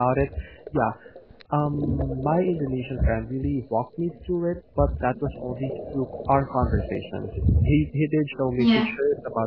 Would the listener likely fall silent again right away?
Yes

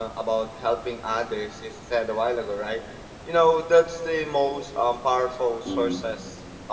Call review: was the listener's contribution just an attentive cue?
Yes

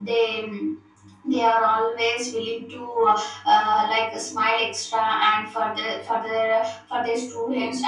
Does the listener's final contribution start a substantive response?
No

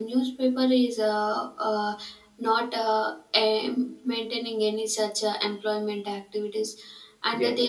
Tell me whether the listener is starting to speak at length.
No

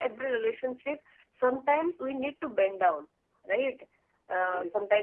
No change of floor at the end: Yes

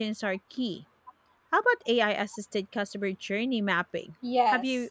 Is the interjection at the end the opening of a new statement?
Yes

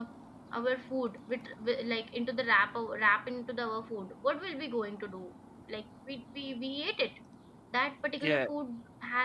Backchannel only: Yes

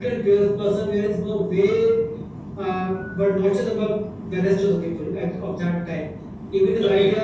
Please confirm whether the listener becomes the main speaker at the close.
No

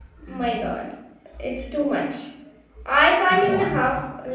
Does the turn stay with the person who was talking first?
Yes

